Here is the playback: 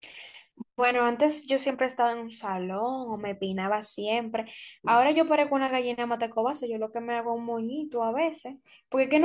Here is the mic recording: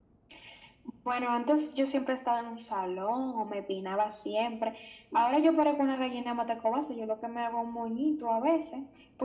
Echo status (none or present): present